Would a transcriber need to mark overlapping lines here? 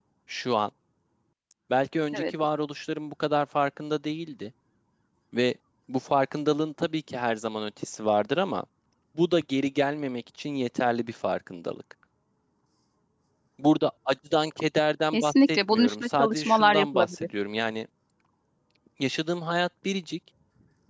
Yes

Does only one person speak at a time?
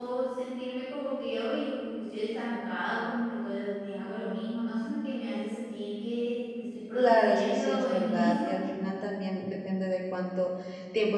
No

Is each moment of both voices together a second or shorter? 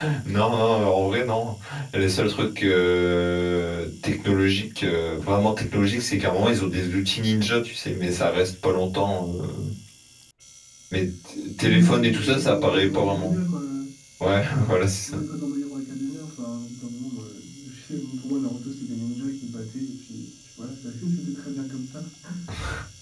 No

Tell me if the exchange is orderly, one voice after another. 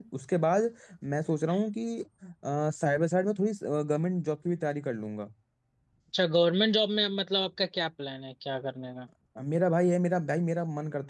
Yes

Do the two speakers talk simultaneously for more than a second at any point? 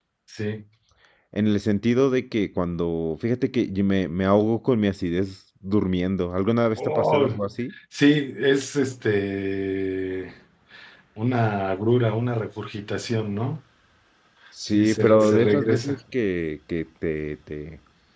Yes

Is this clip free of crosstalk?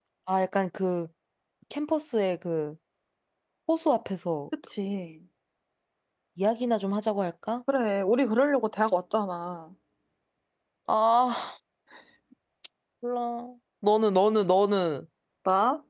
Yes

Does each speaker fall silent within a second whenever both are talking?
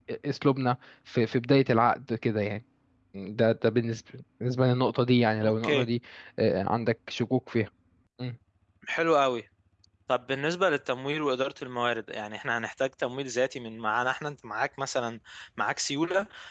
Yes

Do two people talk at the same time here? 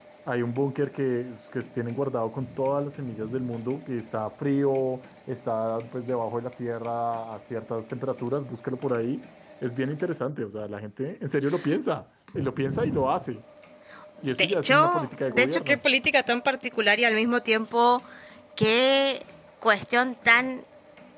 Yes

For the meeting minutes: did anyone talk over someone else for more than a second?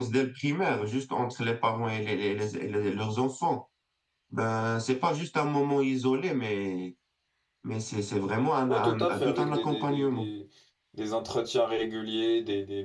Yes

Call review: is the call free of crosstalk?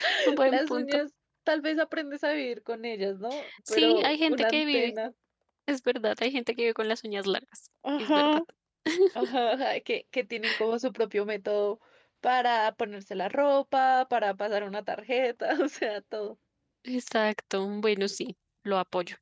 No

